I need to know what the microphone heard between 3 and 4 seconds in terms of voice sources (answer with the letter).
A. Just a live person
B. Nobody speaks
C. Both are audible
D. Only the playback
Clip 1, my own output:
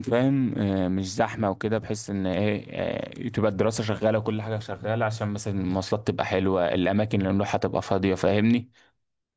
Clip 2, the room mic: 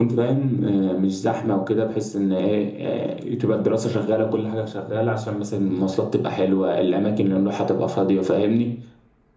D